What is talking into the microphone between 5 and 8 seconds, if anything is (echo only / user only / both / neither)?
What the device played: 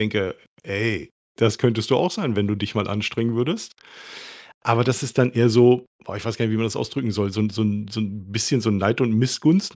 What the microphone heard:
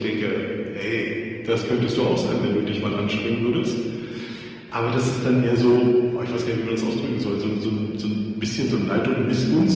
echo only